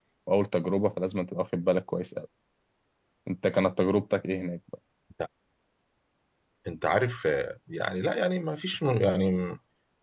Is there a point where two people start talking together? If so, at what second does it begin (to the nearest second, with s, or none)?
none